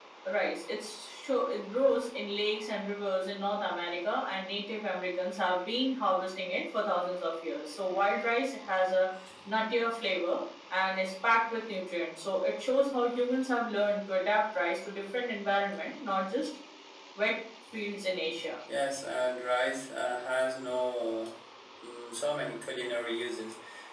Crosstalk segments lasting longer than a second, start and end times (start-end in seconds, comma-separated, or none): none